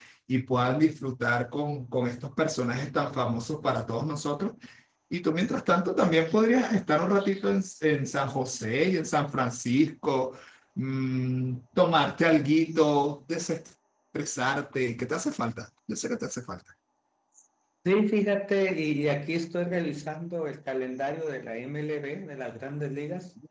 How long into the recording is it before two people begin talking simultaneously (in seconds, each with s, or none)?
none